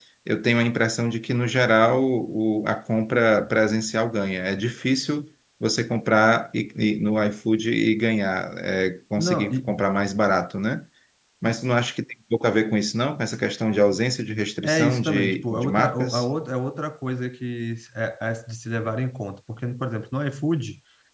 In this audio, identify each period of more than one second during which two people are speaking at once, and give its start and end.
14.6-16.2

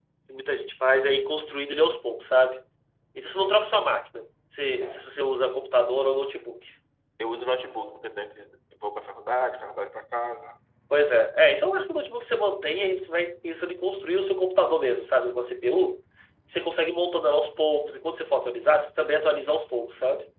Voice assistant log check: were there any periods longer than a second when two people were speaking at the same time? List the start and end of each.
none

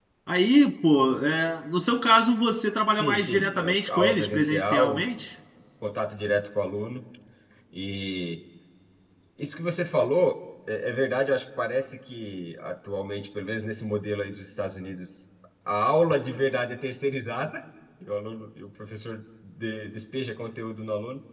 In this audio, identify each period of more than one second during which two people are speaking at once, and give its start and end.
2.9-5.0

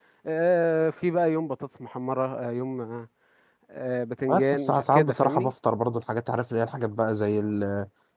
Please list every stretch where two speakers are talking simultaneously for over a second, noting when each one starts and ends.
4.3-5.5

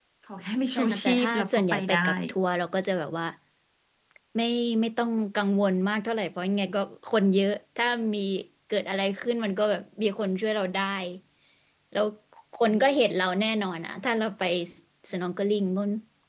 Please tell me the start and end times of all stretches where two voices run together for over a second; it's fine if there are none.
0.7-2.1

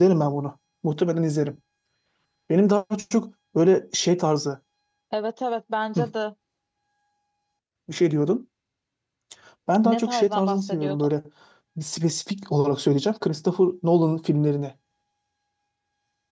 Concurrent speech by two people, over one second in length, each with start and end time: 9.8-11.1

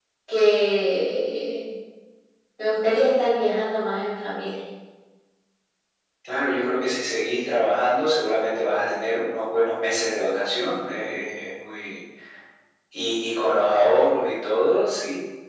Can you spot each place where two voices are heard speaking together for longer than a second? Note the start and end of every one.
none

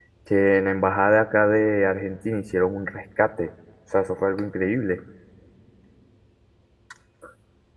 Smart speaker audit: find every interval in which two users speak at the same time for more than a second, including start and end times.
none

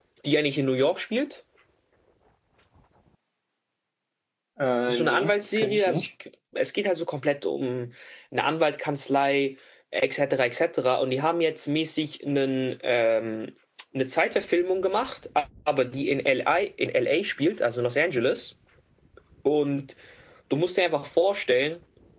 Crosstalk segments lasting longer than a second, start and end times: 4.9-6.1

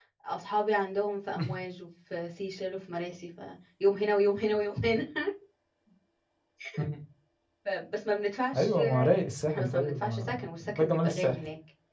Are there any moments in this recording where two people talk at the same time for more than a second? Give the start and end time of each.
9.5-11.3

